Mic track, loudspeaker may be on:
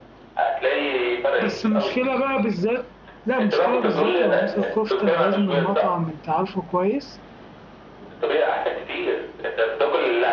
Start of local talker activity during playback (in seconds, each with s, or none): 1.4 s